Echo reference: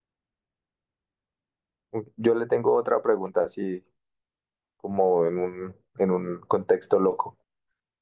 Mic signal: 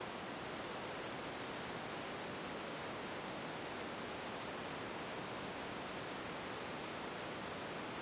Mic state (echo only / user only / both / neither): neither